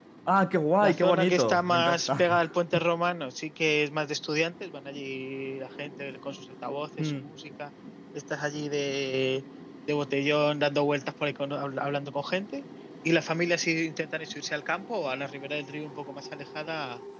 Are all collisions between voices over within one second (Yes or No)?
No